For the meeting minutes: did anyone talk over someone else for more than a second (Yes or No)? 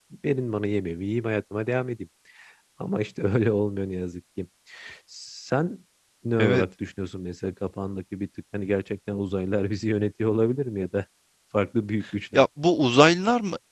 No